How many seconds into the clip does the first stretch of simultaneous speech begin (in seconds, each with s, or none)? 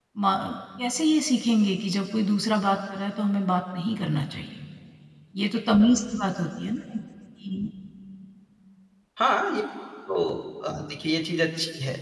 none